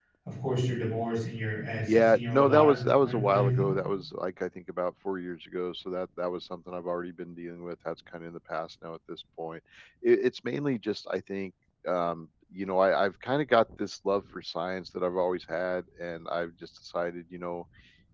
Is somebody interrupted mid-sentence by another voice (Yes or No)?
Yes